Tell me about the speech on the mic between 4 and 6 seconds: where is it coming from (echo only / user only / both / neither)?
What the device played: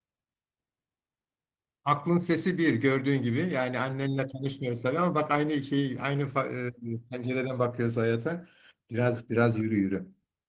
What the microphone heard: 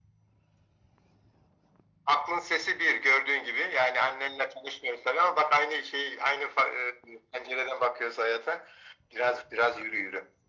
echo only